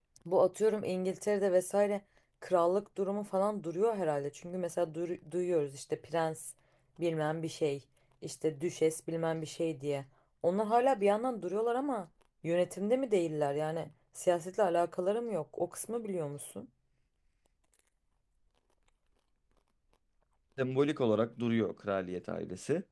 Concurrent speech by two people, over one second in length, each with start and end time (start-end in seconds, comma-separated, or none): none